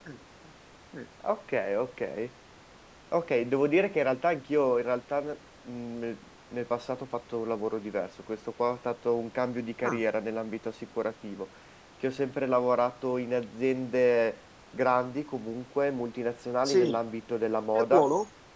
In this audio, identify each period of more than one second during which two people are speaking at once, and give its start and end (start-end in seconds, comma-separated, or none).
none